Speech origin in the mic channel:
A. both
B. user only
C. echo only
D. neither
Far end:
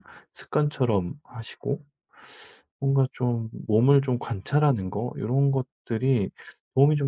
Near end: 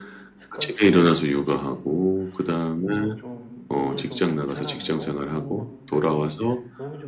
A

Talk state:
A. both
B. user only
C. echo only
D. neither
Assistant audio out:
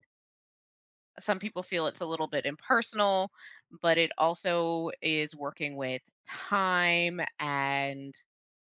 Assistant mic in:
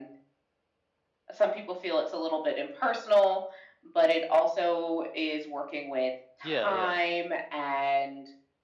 A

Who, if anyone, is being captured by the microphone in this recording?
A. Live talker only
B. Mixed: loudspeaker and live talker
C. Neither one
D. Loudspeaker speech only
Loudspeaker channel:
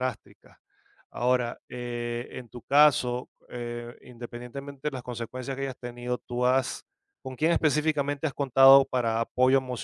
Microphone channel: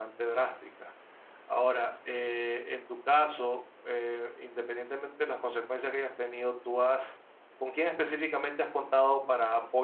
D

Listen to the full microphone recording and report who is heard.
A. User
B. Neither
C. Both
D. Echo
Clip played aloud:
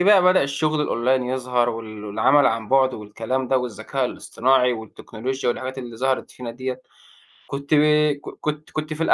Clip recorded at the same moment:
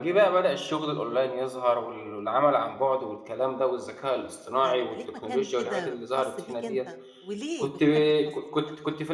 C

